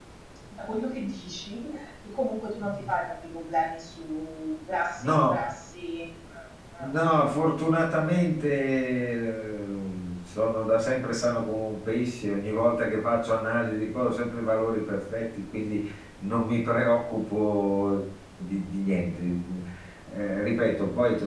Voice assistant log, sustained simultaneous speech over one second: none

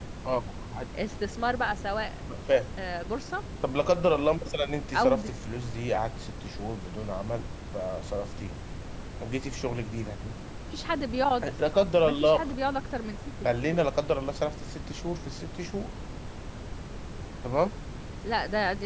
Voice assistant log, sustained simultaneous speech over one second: none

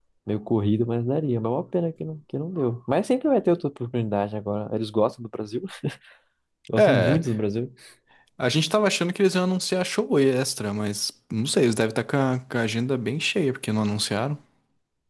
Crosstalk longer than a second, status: none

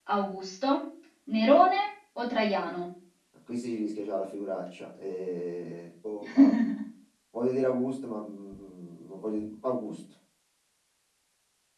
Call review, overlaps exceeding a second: none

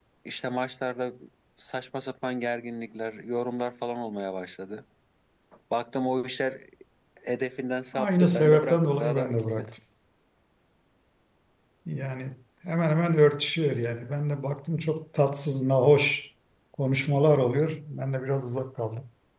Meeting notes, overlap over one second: present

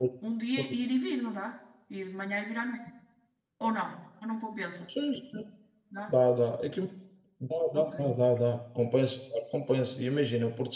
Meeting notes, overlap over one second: none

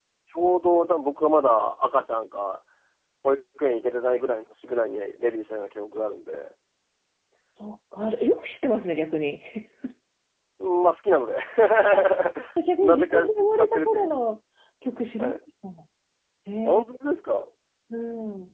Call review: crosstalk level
present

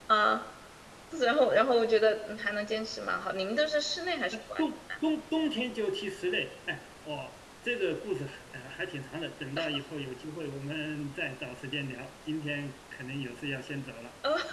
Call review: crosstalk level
none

